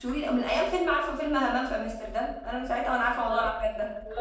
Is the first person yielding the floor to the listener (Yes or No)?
Yes